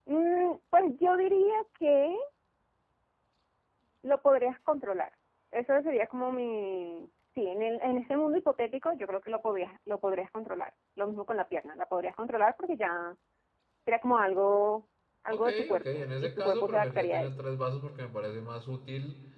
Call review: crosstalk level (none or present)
present